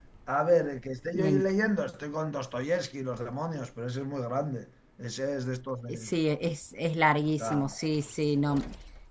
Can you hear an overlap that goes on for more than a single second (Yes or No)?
No